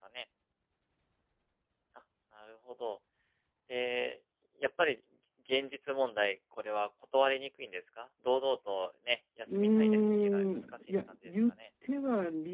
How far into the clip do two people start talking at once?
9 s

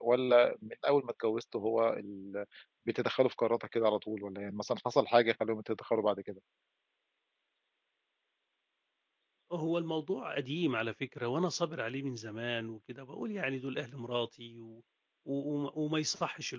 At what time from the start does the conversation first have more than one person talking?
none

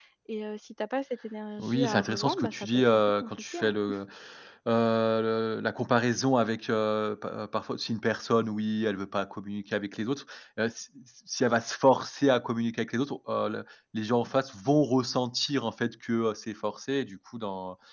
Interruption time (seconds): 2 s

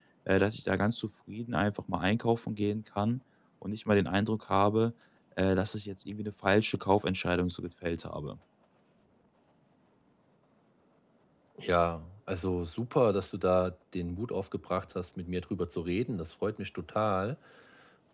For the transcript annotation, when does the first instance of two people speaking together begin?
none

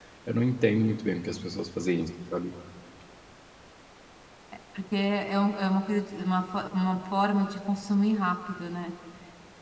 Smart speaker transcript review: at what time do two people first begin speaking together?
none

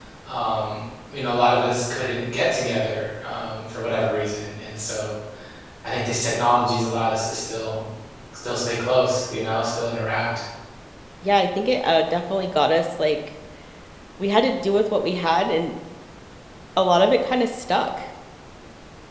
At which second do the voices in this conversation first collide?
none

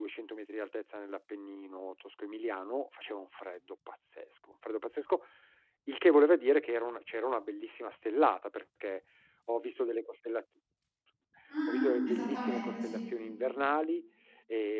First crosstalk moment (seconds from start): 12 s

